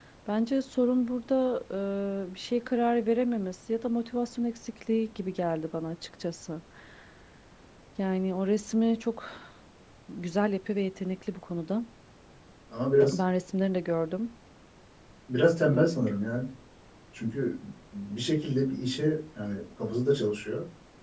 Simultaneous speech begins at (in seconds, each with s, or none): none